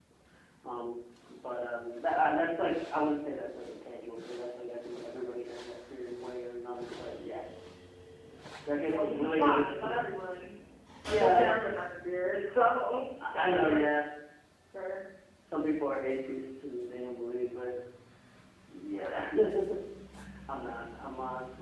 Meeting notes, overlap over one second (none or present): present